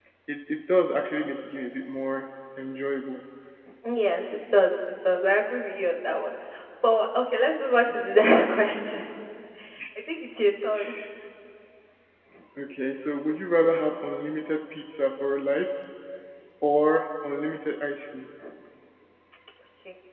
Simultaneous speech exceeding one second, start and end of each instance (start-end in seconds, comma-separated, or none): none